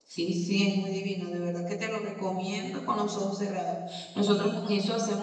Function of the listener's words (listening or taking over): listening